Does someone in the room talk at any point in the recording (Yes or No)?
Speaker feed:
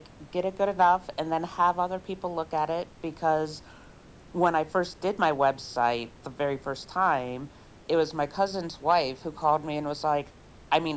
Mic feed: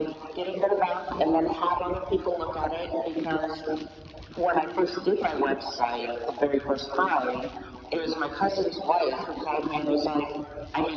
No